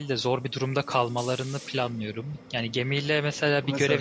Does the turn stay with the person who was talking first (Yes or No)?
Yes